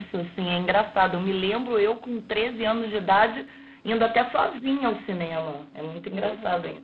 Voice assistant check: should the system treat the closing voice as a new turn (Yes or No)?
No